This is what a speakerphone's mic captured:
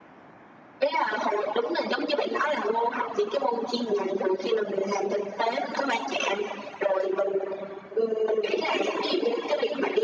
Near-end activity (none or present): none